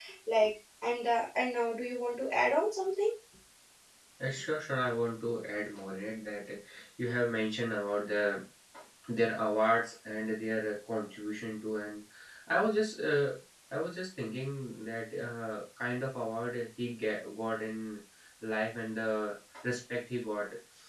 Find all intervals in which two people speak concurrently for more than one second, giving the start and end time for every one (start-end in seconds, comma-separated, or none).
none